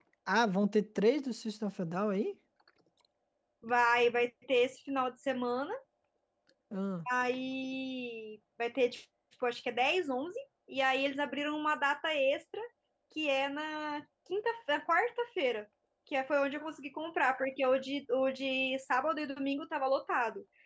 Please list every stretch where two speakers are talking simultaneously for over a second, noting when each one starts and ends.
none

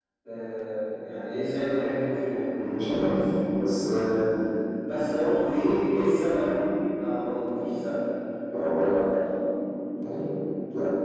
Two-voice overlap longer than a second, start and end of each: none

